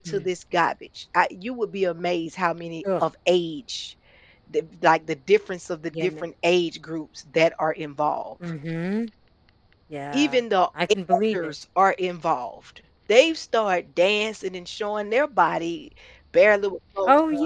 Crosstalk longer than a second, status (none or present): none